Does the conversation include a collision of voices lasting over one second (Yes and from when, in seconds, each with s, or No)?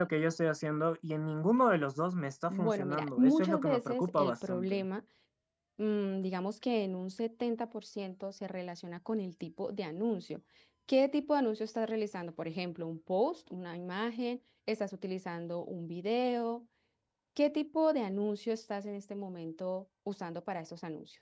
Yes, from 2.5 s